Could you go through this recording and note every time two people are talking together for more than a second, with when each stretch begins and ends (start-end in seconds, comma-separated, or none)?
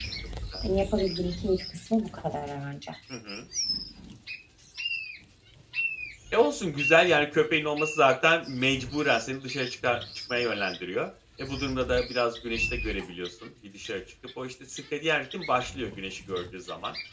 none